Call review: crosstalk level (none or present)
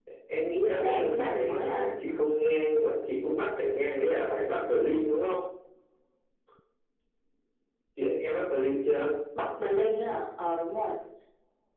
present